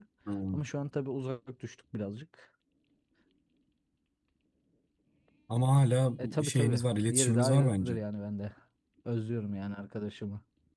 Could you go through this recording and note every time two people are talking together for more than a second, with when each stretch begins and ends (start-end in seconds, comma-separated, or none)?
6.2-8.0